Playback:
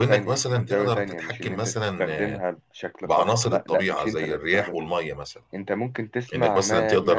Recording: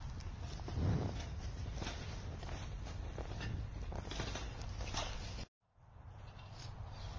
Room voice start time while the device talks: none

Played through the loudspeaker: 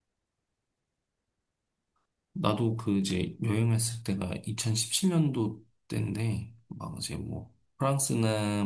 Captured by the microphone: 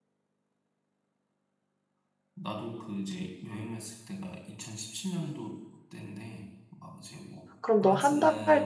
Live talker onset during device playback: 7.6 s

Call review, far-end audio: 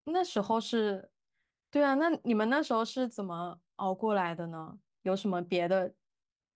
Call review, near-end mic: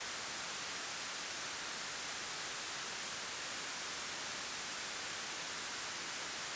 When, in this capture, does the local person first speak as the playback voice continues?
none

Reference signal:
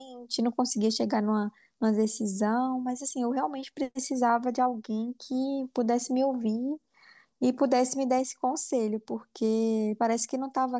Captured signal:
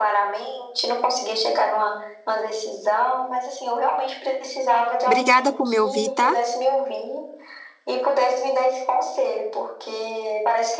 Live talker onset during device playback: 5.0 s

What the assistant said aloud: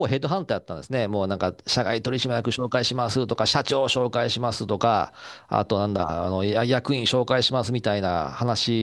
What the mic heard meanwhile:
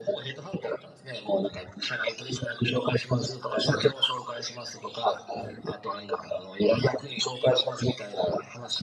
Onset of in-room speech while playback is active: none

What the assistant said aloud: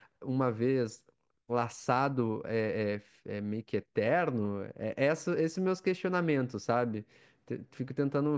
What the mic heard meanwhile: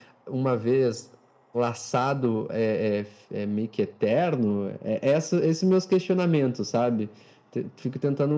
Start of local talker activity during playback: none

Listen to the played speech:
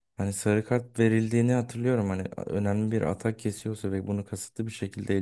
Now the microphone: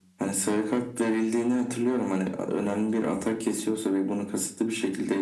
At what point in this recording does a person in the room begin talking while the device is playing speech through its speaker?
none

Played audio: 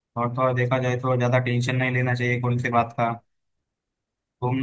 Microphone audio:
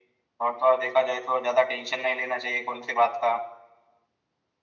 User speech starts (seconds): none

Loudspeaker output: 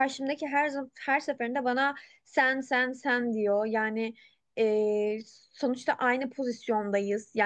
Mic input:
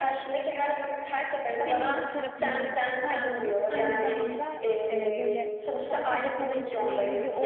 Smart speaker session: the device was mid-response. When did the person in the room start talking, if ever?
1.5 s

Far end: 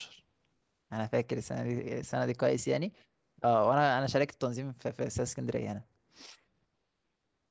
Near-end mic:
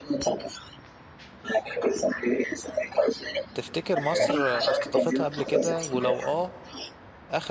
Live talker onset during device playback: 3.5 s

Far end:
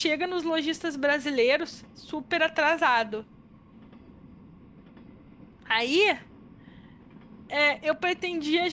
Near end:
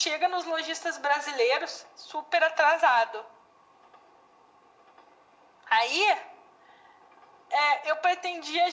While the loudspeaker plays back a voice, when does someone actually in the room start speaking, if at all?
none

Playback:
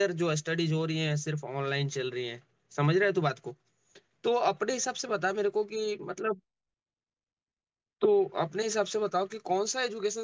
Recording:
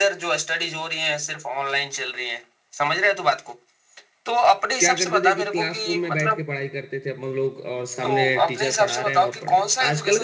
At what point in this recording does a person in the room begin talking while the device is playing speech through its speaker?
4.8 s

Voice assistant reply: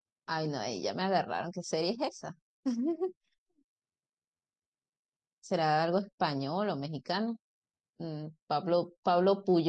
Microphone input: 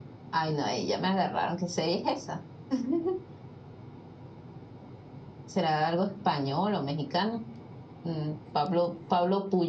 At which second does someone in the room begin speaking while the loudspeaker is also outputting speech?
none

